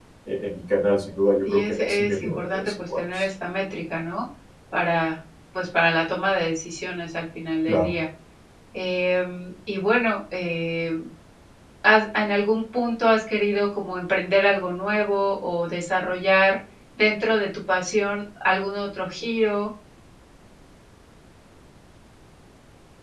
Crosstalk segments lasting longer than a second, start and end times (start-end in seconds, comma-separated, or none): 1.5-3.3